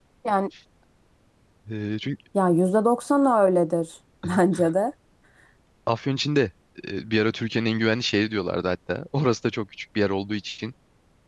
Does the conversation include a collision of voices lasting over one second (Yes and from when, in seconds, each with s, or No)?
No